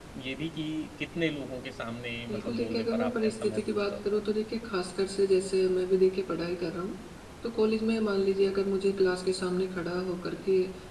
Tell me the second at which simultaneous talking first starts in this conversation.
2.3 s

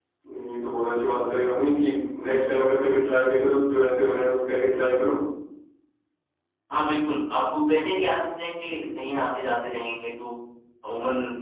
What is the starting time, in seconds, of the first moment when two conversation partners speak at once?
none

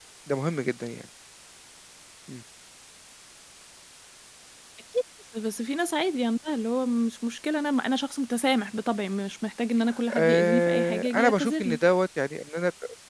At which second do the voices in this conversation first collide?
10.1 s

